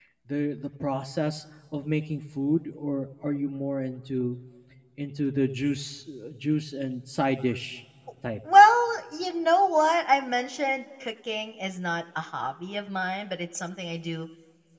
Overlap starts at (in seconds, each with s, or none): none